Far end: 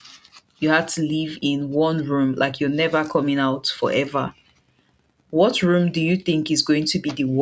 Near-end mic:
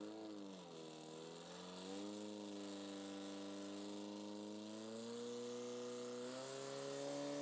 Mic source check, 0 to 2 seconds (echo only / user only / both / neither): neither